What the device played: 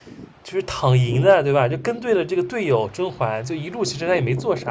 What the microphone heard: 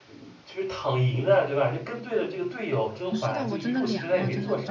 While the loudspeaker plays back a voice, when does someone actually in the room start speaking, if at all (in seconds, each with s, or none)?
3.1 s